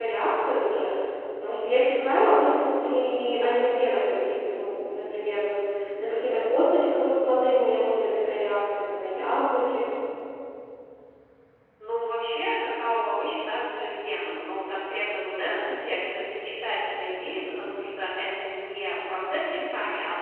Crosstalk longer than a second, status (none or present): none